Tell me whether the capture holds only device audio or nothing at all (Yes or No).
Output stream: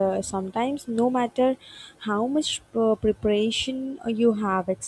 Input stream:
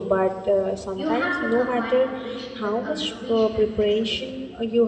No